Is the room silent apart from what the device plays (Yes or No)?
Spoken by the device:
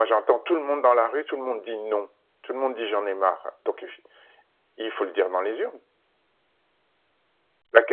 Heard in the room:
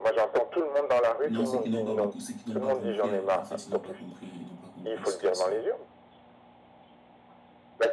No